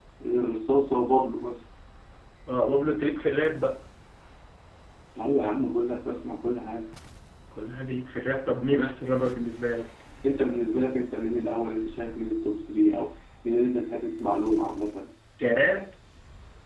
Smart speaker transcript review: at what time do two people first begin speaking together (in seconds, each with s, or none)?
none